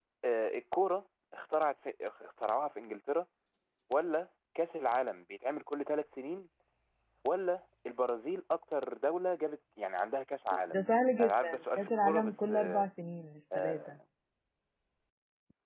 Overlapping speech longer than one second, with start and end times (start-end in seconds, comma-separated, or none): 11.2-12.9